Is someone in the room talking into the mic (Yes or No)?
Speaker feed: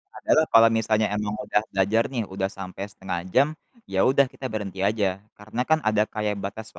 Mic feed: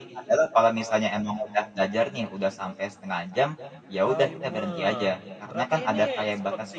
Yes